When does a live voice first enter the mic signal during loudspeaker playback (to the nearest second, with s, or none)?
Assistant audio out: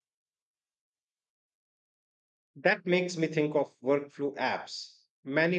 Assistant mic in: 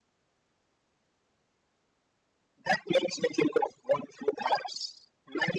none